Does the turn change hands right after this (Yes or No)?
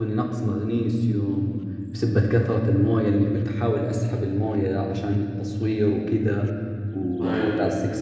No